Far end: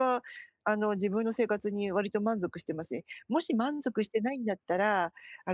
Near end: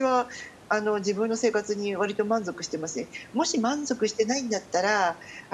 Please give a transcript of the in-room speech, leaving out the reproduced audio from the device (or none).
none